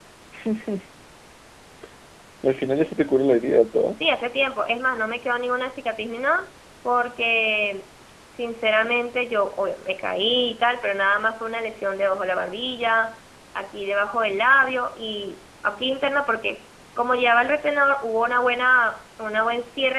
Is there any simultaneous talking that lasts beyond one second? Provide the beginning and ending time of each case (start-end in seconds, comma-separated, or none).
none